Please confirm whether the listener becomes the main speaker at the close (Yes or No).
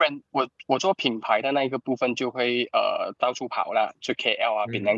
Yes